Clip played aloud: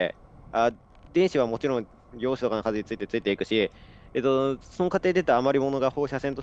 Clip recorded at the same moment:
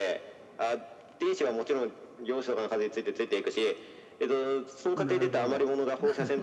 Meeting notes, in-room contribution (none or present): present